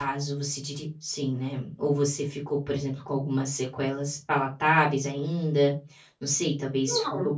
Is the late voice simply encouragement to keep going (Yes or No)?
Yes